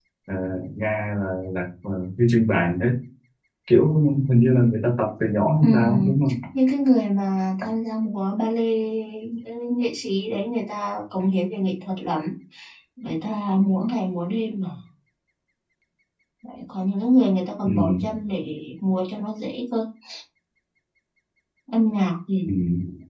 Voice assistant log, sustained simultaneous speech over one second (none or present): none